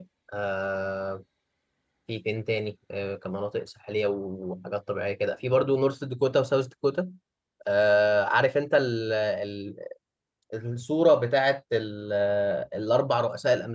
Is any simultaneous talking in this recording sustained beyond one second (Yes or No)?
No